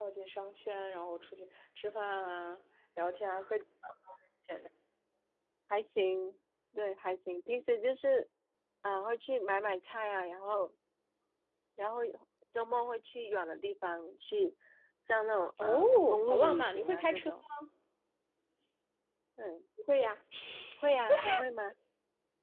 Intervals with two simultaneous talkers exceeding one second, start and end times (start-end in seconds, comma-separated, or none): 15.6-17.3